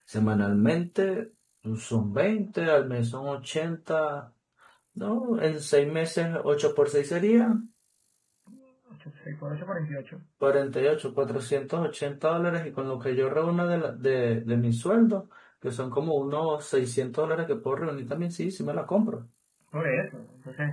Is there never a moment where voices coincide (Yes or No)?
Yes